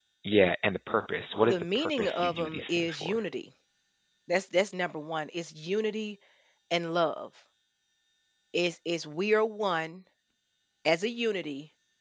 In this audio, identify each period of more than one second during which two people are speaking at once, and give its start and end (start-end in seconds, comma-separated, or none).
1.4-3.2